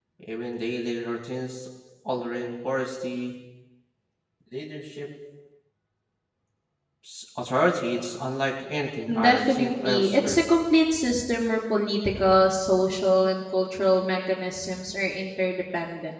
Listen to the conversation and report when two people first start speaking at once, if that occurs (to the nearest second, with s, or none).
9 s